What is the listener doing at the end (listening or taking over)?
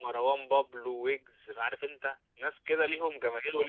listening